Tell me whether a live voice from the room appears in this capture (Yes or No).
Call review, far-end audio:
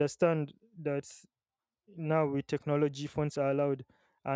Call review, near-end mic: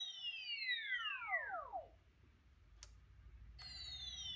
No